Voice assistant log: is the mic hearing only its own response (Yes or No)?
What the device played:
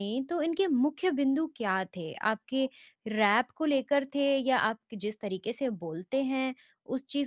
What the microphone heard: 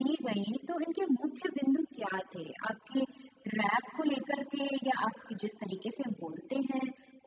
Yes